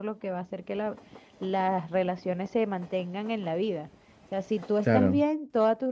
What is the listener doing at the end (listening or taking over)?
listening